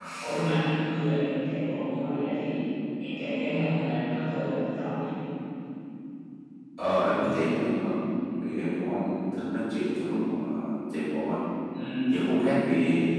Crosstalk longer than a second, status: none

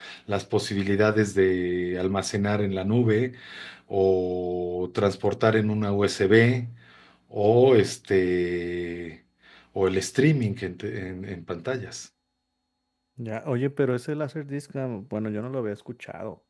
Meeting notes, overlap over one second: none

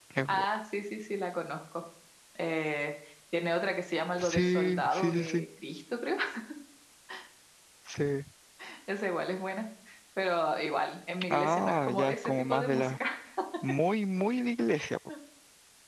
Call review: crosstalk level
present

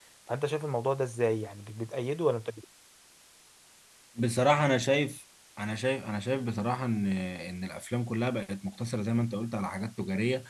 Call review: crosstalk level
none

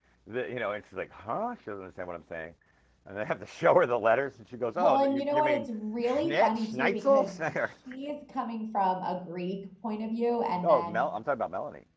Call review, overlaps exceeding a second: present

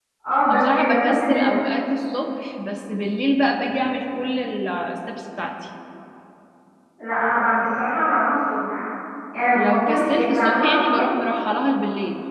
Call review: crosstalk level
present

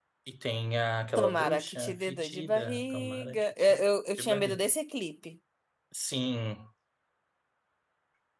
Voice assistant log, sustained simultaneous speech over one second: present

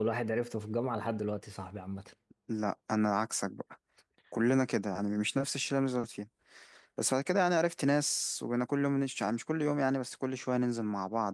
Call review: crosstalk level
none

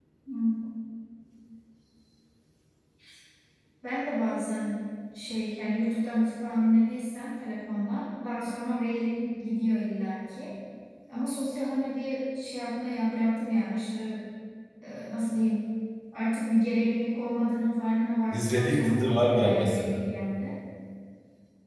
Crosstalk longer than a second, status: present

